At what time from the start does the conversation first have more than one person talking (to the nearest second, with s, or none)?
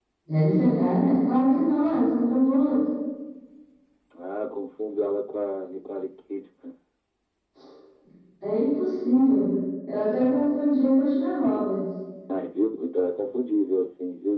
none